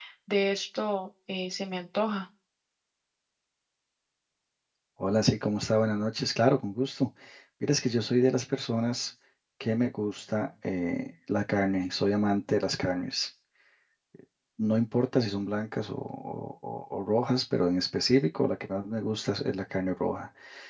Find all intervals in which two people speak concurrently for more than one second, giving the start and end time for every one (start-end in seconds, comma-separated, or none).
none